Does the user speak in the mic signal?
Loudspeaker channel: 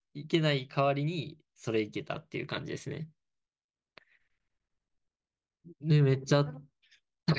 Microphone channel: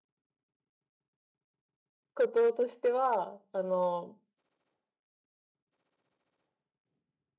Yes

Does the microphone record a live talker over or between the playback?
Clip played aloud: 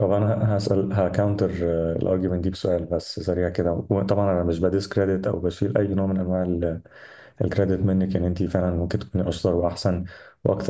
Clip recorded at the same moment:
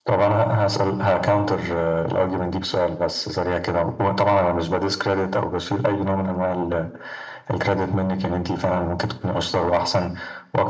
No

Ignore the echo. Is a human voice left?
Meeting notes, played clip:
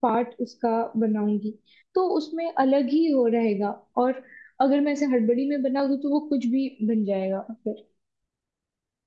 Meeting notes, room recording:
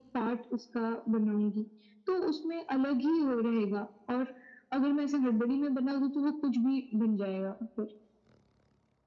No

